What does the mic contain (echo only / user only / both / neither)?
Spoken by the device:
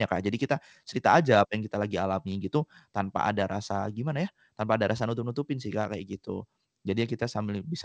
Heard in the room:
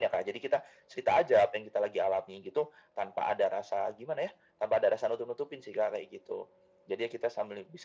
echo only